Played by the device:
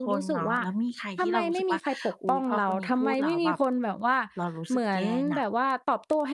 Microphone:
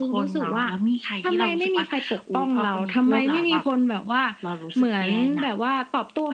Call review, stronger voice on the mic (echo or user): echo